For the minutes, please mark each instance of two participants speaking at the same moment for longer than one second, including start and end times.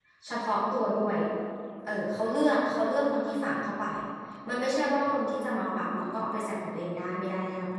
none

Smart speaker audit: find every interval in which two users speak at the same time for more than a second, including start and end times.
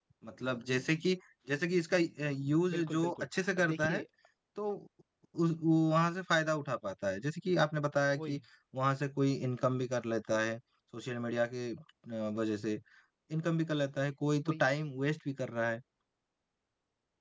2.7-4.0

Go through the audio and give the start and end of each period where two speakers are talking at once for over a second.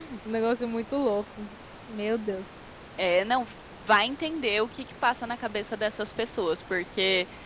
none

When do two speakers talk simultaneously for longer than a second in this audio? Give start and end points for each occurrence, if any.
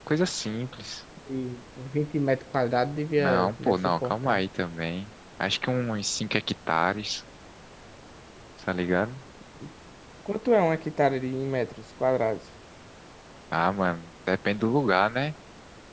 3.2-4.4

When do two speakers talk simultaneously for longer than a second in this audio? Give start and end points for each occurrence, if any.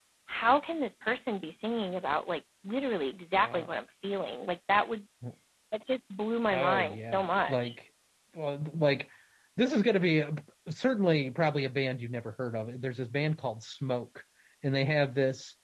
6.5-7.7

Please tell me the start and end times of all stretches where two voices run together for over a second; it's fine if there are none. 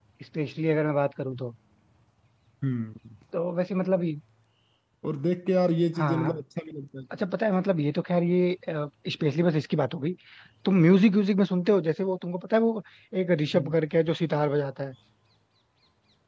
none

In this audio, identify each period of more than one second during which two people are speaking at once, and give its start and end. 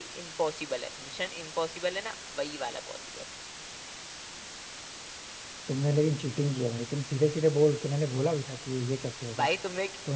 none

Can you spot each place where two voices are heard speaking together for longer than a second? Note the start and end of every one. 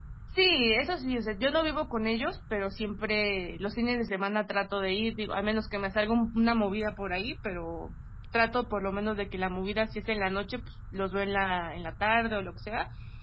none

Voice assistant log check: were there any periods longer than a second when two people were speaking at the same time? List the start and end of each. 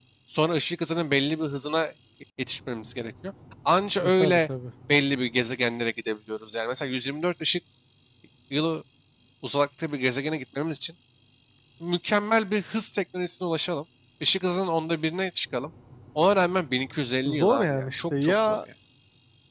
17.2-18.6

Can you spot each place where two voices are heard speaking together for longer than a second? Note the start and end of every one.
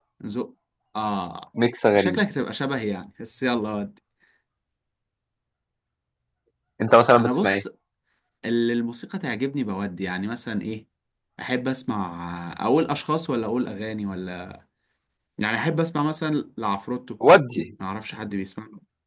none

